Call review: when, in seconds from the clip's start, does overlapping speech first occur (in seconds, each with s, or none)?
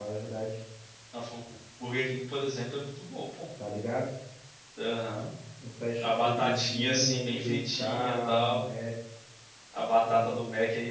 6.0 s